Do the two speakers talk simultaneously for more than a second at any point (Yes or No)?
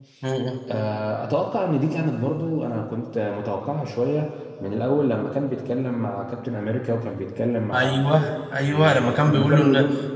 Yes